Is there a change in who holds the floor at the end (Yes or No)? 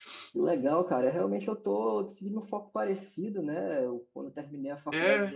No